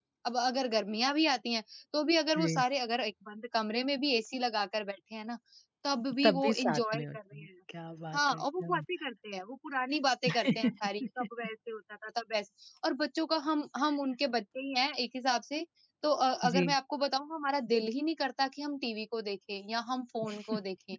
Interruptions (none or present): present